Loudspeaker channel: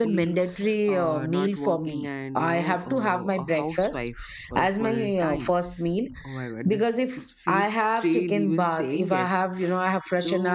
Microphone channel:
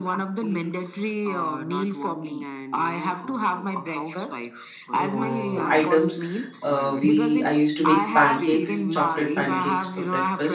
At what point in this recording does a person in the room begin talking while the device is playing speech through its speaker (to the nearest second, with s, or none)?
5 s